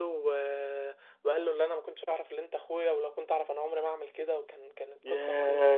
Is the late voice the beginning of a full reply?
Yes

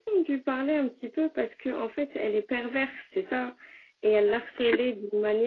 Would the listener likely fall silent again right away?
Yes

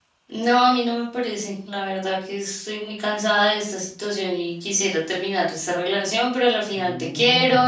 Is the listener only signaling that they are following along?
Yes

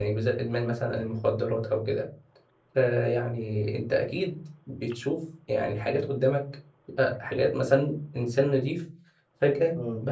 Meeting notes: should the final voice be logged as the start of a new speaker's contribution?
No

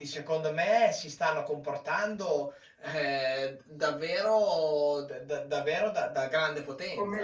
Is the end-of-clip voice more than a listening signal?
Yes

